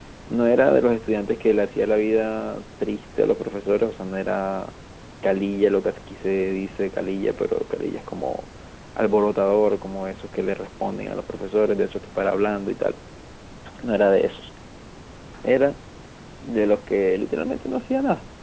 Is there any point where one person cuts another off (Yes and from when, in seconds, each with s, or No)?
No